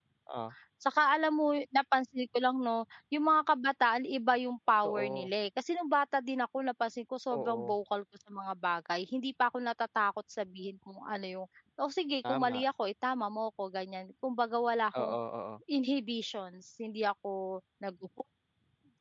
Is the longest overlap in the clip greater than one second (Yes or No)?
No